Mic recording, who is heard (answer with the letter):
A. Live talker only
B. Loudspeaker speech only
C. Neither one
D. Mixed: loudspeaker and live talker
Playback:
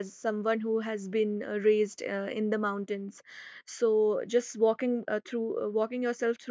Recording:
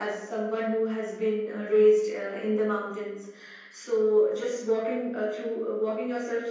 B